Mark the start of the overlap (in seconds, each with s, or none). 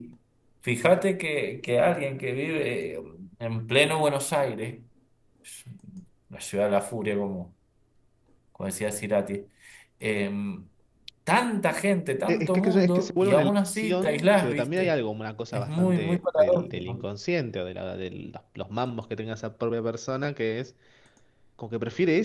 12.3 s